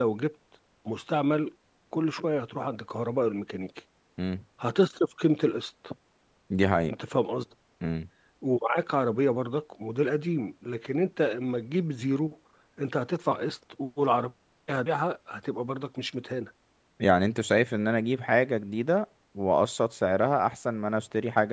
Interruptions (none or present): none